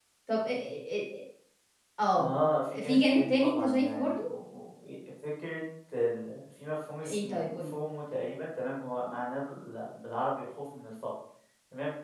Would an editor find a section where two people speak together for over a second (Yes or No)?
Yes